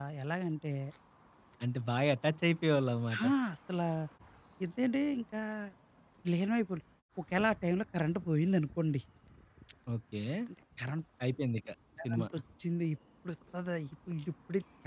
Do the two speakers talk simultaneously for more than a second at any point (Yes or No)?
No